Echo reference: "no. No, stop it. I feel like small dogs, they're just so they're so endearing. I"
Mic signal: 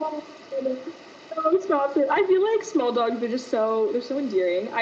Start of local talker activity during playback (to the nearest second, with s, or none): none